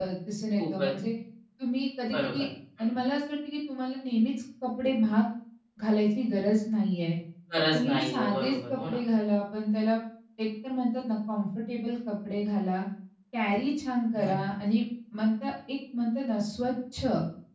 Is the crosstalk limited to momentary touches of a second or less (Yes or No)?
No